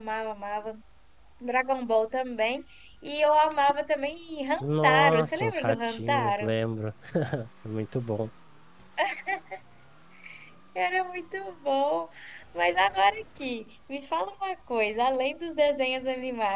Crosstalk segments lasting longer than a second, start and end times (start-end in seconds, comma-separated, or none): 4.6-6.5